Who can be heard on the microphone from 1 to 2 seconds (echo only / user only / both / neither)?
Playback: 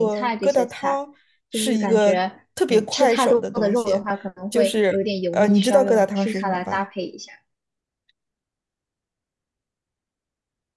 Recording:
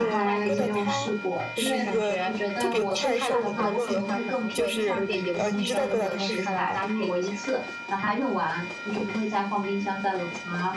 both